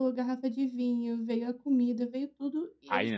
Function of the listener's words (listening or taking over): taking over